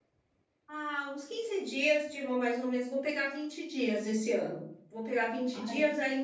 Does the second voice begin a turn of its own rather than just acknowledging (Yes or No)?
No